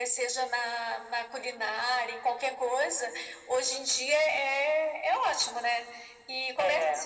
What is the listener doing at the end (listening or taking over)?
listening